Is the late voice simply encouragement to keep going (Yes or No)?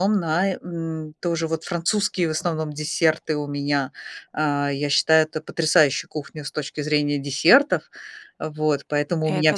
Yes